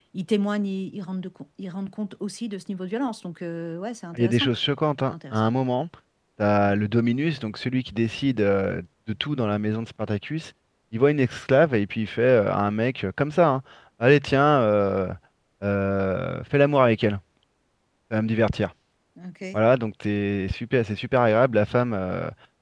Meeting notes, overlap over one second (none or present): none